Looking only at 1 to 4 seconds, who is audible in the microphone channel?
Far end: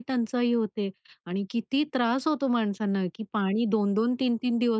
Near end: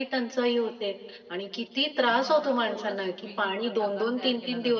both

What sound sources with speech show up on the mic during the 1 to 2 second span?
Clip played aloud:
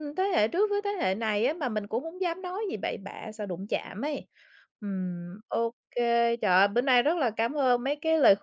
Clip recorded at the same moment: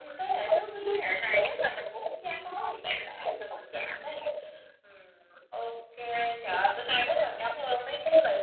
echo only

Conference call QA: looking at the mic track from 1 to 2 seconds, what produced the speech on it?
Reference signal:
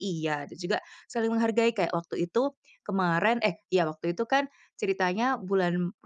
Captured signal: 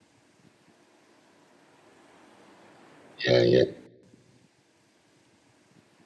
neither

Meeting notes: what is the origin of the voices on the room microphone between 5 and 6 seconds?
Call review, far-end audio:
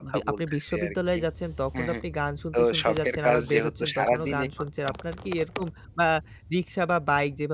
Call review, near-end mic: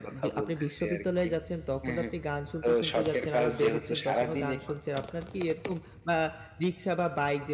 echo only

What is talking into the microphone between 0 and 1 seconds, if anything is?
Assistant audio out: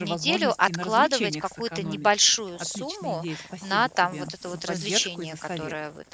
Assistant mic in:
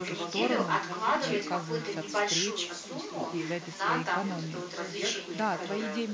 both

